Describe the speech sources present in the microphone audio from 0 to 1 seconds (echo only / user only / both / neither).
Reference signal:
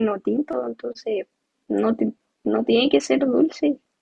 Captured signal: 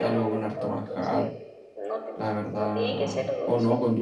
both